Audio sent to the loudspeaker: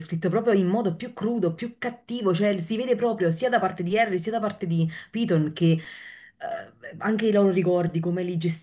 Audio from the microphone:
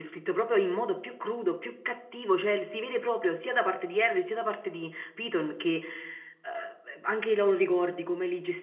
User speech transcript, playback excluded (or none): none